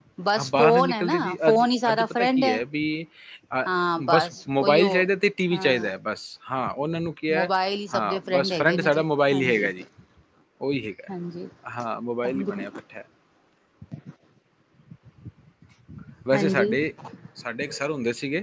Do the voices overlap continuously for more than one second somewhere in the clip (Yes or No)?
Yes